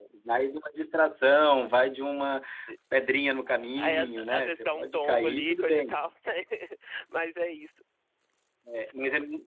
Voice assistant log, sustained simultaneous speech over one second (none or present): present